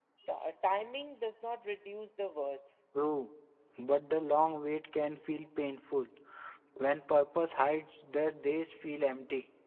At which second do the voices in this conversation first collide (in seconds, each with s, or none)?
none